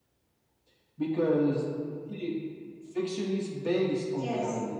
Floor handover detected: Yes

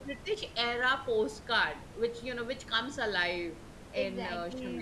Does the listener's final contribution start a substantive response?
Yes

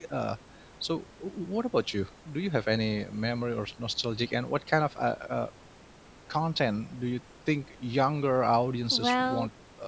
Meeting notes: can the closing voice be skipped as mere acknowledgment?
No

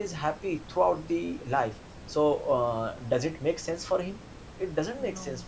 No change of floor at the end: Yes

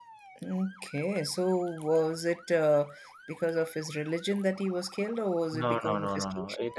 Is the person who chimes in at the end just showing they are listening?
No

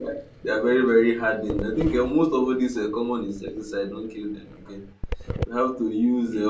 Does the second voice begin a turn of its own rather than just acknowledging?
No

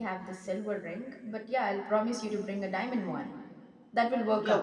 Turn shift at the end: Yes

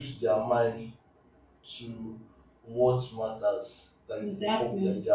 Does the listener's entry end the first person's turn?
No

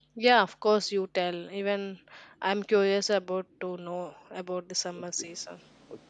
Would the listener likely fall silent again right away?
No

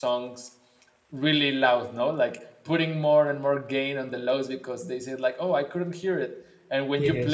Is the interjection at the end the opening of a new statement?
No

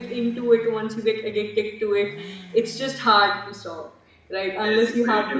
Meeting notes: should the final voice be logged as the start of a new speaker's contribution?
Yes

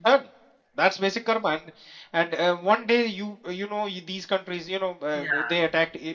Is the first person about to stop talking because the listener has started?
No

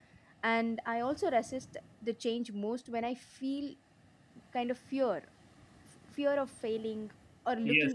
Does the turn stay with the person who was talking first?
No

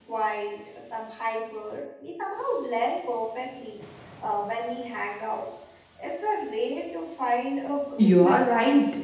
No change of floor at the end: No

